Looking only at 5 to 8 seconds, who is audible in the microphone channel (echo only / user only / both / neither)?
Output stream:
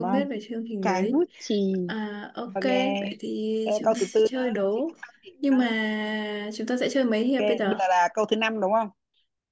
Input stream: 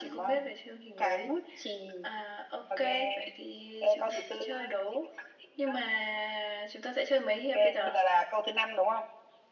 echo only